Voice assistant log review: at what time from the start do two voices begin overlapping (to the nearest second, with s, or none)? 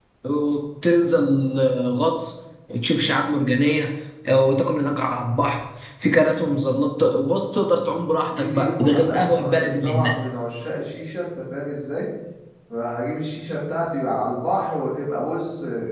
8 s